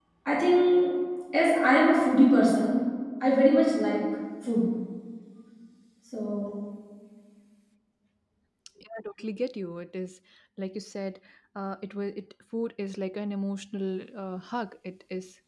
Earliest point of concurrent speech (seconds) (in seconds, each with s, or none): none